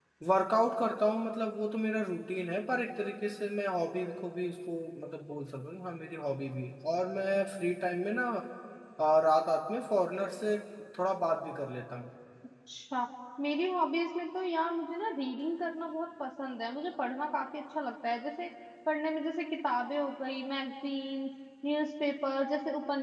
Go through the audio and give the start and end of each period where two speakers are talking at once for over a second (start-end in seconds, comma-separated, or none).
none